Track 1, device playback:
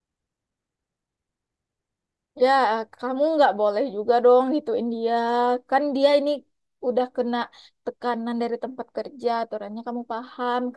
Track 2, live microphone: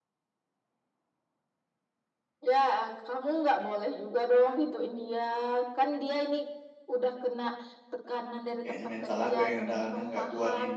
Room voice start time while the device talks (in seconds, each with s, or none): 8.6 s